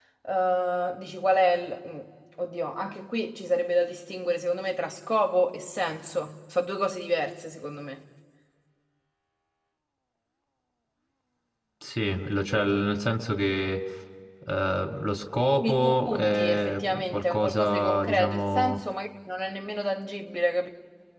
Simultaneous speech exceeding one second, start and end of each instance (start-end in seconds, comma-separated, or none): 15.6-18.8